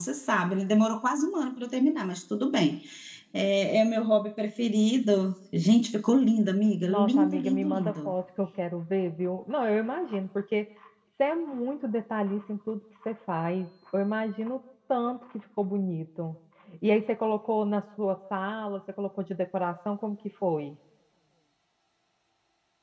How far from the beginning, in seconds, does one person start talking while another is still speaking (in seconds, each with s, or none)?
6.9 s